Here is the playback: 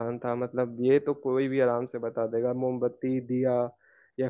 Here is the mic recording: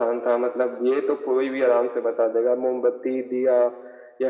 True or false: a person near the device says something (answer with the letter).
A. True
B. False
B